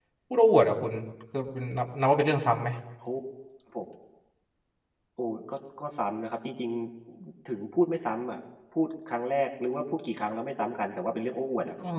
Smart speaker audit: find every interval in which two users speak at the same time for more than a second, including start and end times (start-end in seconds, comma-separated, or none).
none